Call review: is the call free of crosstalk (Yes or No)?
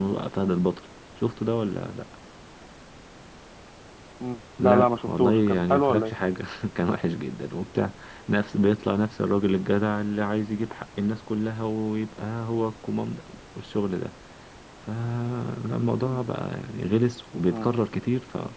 No